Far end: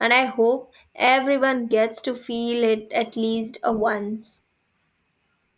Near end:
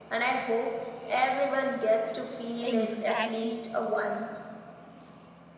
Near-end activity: present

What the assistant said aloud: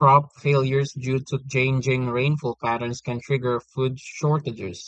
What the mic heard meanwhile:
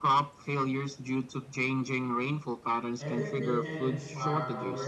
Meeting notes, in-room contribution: present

